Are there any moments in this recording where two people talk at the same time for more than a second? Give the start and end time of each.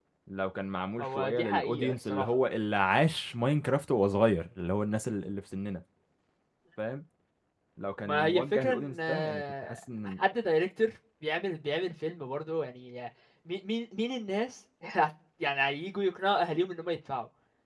1.0-2.2, 8.0-10.2

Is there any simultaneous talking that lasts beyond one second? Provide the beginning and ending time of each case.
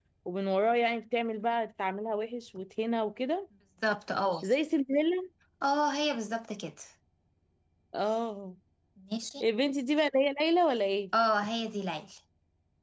none

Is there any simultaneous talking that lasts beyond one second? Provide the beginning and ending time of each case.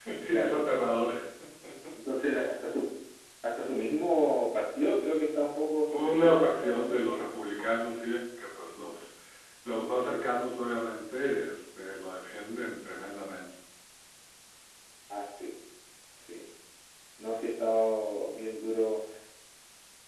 5.9-7.3

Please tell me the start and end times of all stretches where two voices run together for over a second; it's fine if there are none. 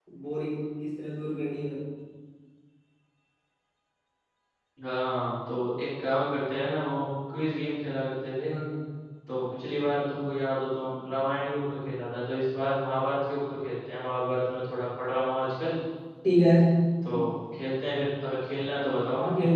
none

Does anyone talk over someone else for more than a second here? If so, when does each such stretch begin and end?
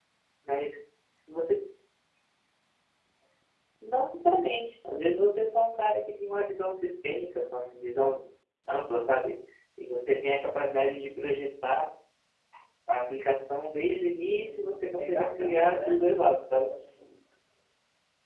14.4-16.0

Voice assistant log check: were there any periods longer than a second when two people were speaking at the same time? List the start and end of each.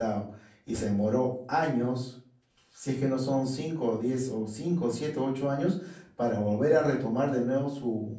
none

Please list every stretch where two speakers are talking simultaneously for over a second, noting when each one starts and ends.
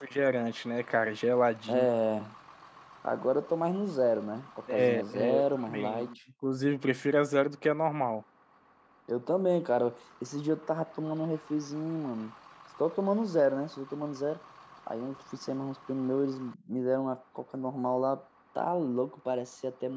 4.7-6.1

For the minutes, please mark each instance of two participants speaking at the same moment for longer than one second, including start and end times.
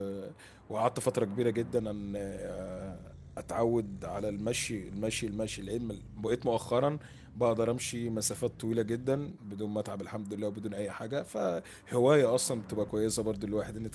none

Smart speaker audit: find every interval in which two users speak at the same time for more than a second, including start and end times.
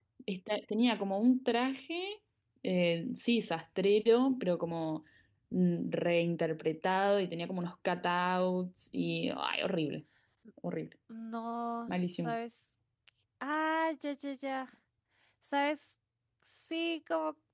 none

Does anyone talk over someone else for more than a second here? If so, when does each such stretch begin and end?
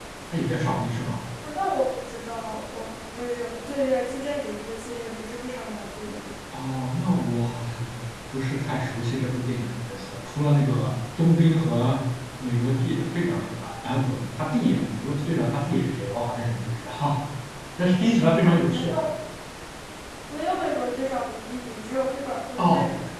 none

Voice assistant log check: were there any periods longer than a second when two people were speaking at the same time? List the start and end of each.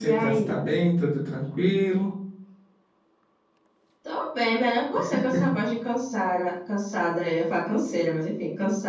none

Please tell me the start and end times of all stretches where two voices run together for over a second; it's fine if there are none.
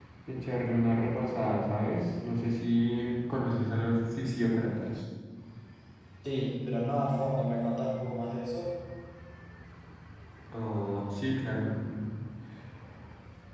none

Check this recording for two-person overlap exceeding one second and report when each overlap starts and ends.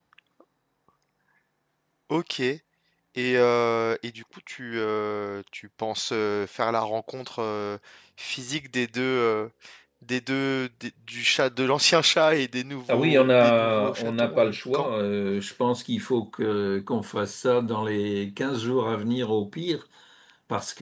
12.9-14.9

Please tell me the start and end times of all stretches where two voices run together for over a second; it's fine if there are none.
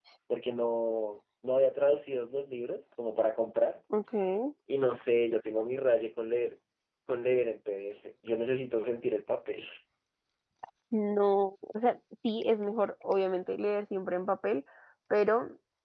none

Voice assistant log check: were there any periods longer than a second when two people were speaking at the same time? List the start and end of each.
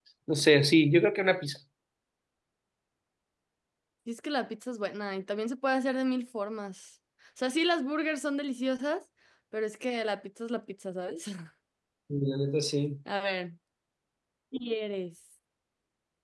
none

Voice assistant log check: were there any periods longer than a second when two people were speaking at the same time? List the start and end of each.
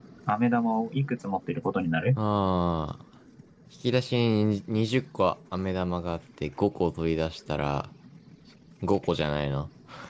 none

